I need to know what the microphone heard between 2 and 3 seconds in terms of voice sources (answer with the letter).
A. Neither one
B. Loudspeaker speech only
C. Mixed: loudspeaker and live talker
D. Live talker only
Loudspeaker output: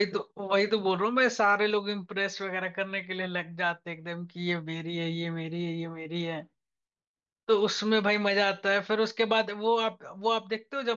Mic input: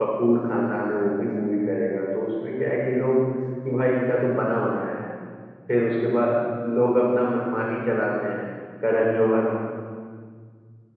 D